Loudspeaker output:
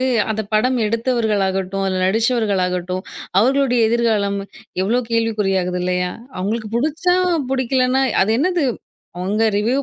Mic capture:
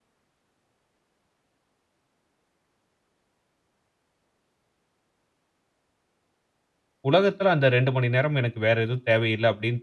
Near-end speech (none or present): present